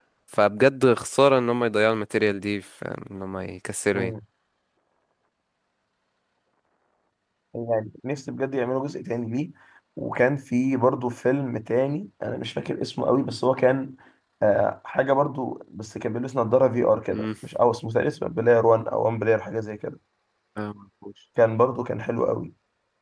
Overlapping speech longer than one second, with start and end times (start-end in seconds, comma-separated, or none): none